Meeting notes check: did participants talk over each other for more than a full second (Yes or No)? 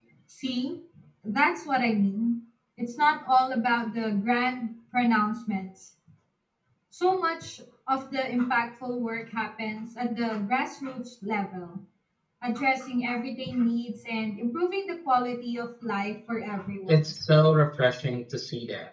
No